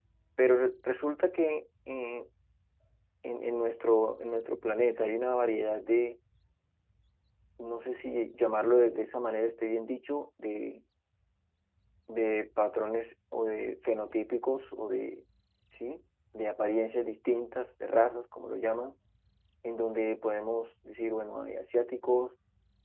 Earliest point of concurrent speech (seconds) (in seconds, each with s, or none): none